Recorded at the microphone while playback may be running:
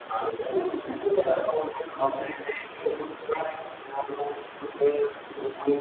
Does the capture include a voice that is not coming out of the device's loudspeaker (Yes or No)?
No